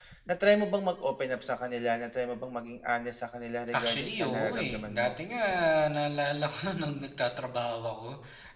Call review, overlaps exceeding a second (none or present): present